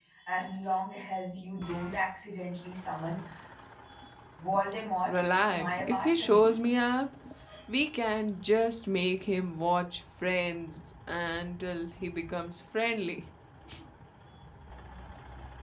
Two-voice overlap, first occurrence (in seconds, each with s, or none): 5.0 s